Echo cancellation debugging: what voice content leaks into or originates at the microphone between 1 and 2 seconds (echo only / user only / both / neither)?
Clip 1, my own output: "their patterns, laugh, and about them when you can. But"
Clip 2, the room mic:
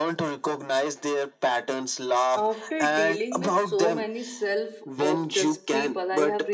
echo only